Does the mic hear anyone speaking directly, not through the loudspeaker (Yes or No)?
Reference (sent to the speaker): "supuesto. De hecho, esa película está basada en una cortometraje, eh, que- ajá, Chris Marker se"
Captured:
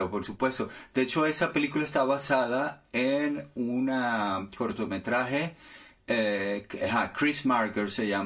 No